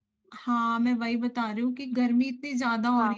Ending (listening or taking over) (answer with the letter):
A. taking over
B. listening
B